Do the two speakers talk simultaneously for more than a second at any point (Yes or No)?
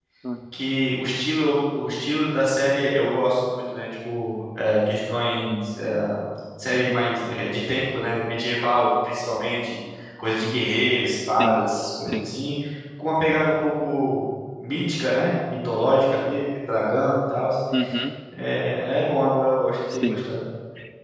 No